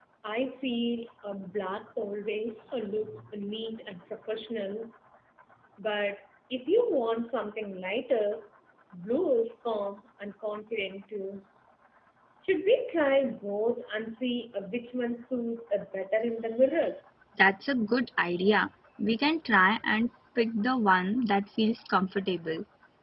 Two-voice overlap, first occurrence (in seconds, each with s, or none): none